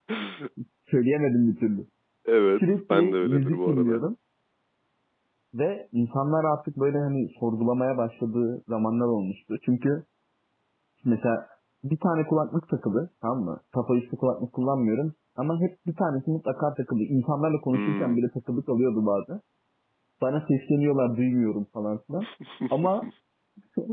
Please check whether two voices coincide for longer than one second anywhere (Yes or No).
Yes